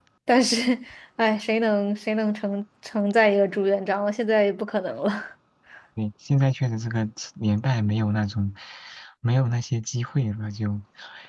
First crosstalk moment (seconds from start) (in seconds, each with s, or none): none